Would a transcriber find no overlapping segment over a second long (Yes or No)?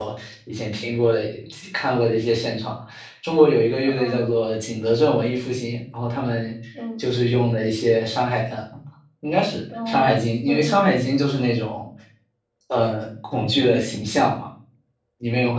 Yes